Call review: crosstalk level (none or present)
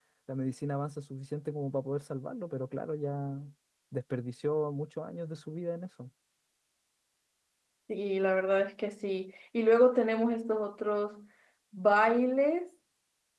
none